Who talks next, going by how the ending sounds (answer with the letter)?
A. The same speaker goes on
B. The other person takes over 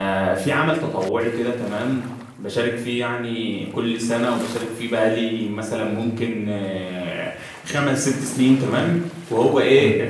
A